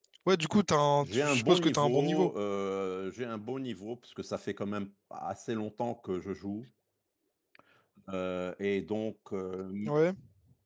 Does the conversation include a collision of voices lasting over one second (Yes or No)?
Yes